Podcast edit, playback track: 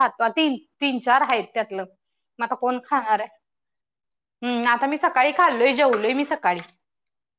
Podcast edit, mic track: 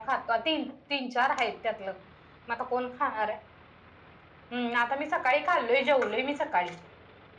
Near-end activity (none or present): none